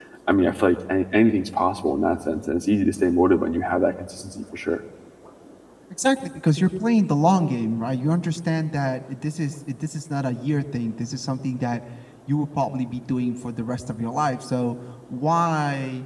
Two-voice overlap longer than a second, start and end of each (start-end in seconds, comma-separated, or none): none